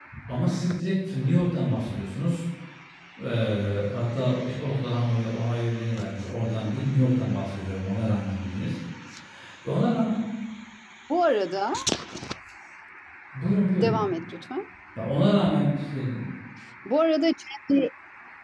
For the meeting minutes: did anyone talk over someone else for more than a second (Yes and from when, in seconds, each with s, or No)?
No